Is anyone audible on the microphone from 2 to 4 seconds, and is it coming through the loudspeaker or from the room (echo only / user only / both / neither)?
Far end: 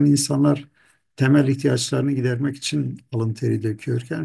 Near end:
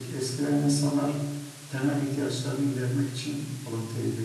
echo only